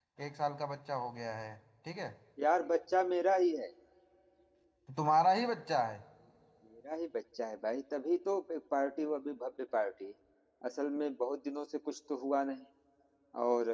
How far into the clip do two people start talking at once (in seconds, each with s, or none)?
none